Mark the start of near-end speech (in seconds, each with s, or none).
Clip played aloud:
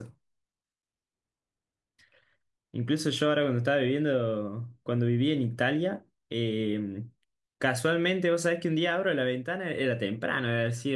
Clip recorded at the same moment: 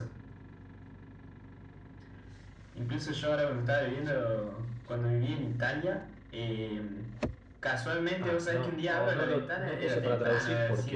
8.2 s